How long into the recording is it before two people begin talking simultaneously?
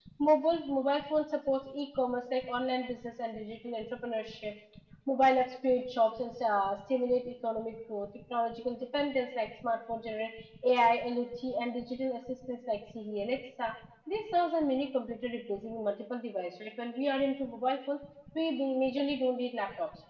none

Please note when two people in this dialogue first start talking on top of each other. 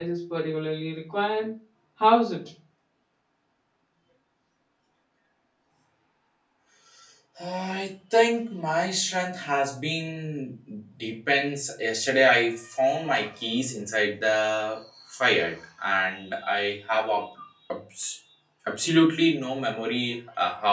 none

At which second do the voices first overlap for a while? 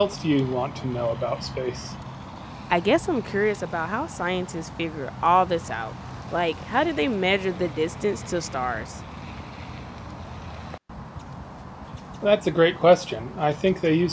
none

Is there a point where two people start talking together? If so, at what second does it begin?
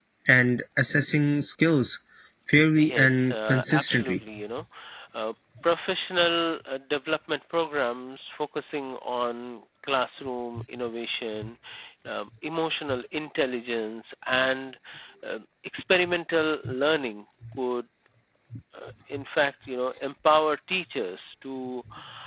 2.8 s

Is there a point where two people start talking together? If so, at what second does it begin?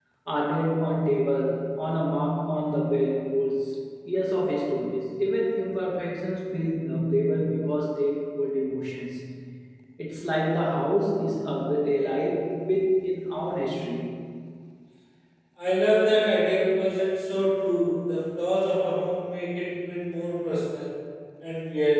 none

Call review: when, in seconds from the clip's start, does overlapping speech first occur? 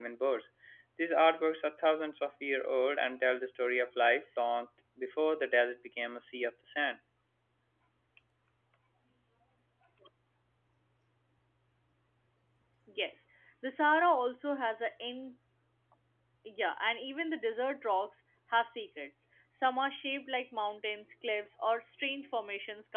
none

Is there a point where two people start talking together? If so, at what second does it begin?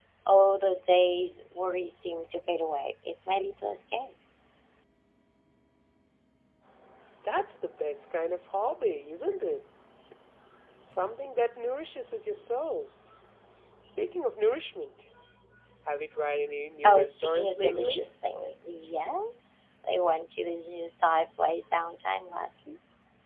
16.6 s

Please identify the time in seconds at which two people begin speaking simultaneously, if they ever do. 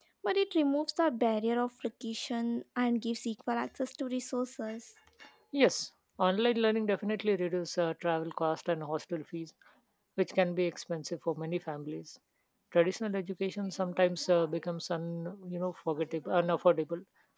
none

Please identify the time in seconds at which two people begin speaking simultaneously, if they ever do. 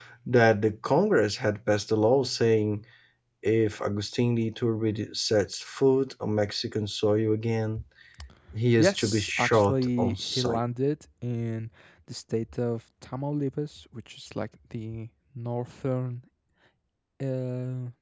8.8 s

